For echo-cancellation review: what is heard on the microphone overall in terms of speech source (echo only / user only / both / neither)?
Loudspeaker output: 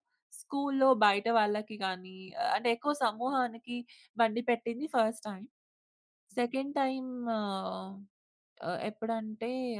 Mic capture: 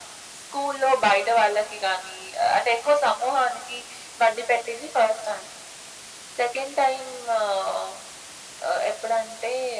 echo only